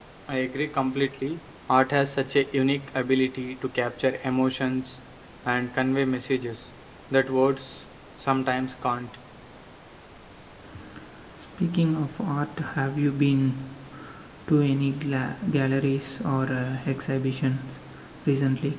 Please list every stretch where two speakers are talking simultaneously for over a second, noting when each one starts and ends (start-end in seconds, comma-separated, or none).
none